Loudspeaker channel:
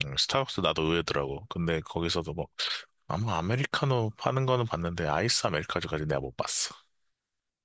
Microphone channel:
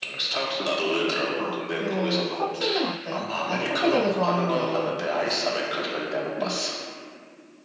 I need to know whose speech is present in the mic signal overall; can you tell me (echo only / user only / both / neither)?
both